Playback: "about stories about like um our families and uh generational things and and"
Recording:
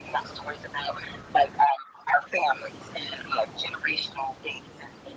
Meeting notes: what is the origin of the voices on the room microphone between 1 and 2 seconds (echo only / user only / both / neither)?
echo only